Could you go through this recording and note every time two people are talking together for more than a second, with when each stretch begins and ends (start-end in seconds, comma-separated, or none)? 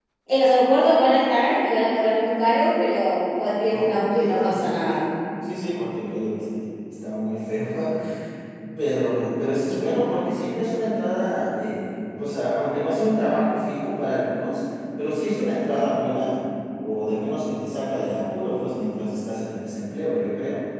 3.7-5.1